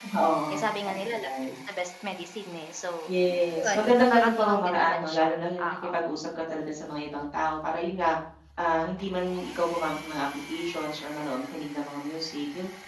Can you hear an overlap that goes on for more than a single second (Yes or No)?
Yes